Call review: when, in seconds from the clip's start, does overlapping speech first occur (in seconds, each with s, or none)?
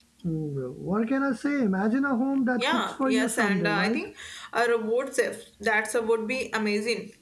2.6 s